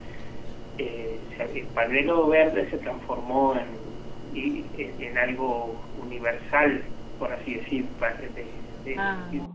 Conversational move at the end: listening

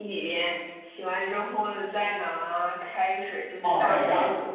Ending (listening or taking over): taking over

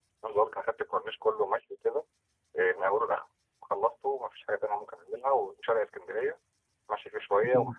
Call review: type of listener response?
listening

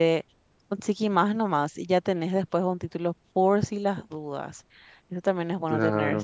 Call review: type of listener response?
listening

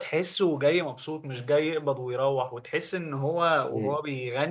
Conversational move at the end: listening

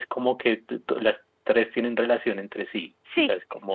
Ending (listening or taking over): taking over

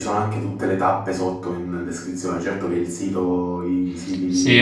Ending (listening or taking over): taking over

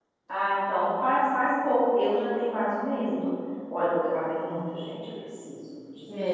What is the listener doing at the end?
taking over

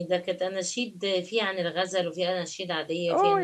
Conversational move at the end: taking over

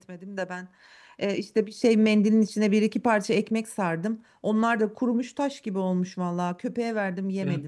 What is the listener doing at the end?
taking over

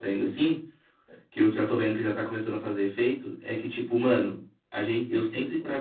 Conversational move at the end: listening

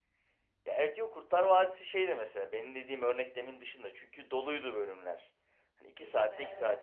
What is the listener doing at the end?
listening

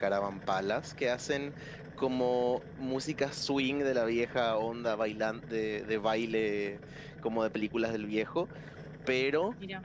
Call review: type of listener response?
listening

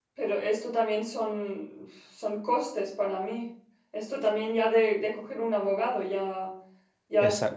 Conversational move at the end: listening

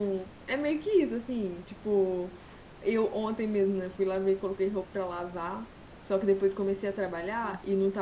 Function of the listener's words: listening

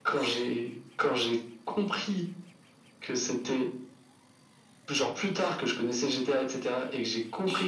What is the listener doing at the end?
listening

